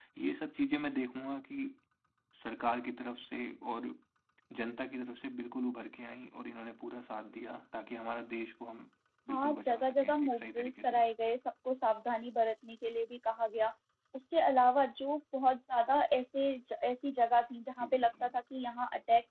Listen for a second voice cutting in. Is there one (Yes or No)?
Yes